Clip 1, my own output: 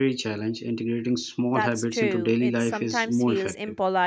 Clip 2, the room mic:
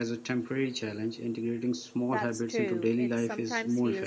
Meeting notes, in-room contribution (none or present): none